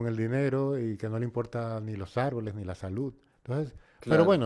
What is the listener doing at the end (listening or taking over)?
listening